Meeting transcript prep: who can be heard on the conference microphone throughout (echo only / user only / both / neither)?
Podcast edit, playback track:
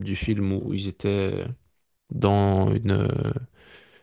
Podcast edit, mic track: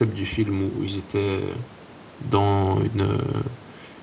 echo only